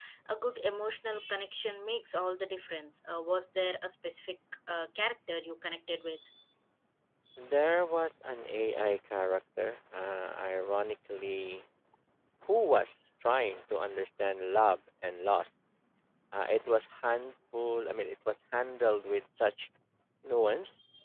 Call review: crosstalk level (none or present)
none